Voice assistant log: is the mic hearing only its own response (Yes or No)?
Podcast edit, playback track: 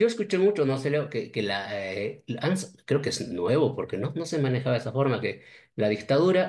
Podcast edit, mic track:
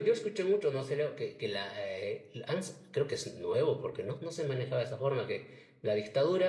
Yes